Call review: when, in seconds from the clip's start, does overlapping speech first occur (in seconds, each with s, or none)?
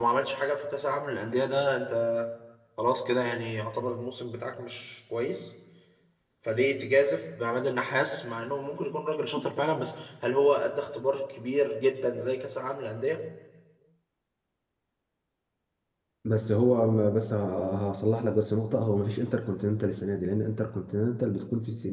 none